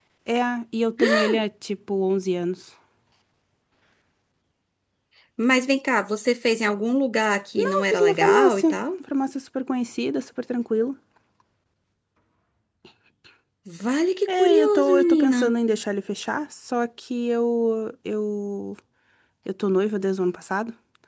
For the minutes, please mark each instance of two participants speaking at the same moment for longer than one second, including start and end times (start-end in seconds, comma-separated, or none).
7.6-8.8, 14.3-15.5